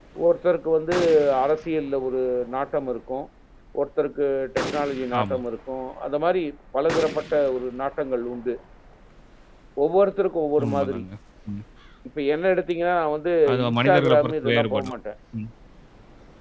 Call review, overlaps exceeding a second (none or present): present